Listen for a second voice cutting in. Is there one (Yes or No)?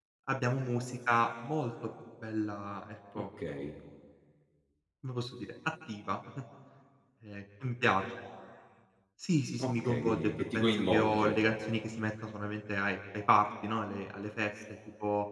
Yes